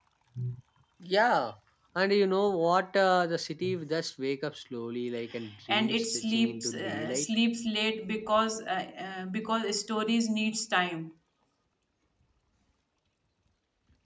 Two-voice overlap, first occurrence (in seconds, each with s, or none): 5.7 s